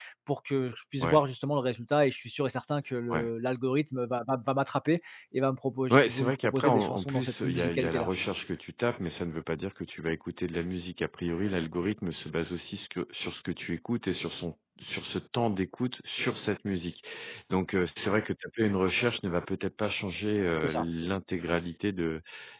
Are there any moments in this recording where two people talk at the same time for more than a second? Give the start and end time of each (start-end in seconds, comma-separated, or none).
5.9-8.1